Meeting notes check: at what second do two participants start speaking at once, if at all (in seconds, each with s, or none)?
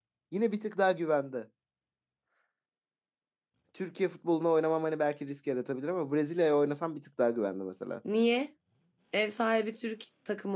none